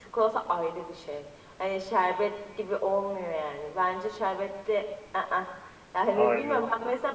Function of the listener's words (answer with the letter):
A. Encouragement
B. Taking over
A